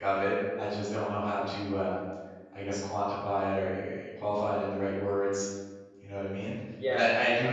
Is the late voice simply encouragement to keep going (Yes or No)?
Yes